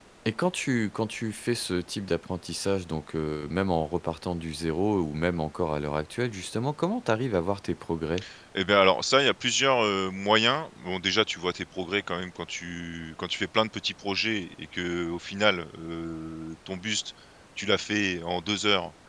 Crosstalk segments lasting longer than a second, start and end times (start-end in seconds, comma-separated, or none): none